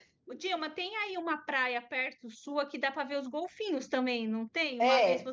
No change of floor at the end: No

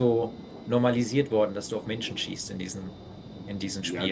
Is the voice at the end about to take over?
Yes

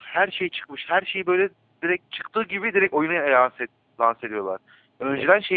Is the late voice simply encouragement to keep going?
Yes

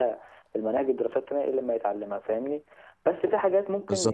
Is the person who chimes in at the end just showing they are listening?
Yes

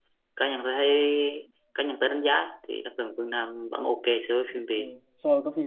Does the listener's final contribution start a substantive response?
Yes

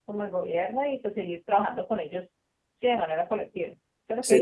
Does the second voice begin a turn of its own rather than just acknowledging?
Yes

